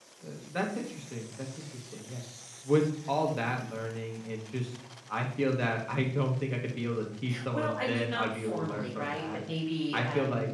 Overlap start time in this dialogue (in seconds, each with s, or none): 7.5 s